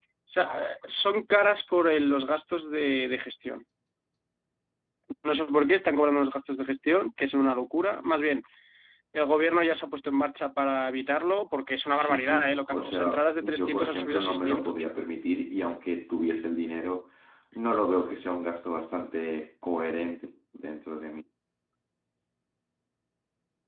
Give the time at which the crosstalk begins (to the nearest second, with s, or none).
12 s